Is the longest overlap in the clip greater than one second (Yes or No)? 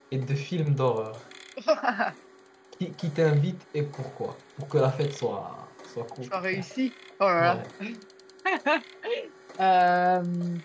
No